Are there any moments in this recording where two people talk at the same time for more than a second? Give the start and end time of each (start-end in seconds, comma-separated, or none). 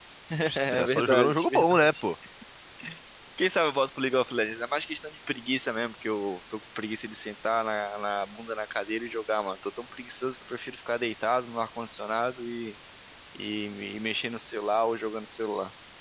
0.6-1.9